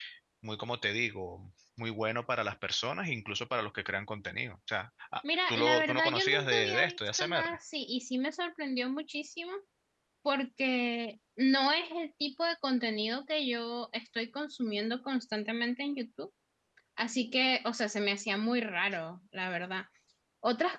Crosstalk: present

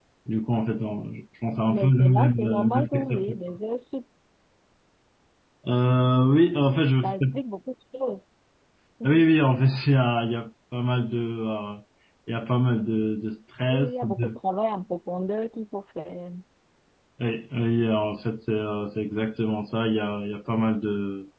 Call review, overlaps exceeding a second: present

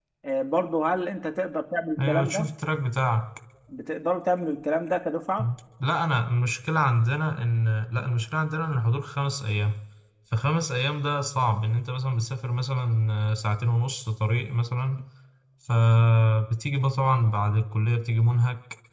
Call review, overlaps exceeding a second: none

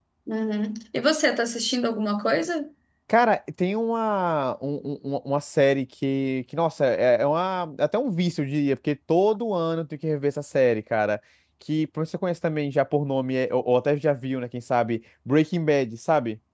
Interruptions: none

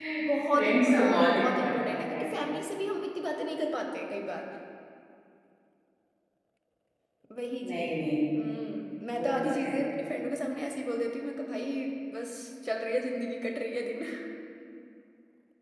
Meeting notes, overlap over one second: present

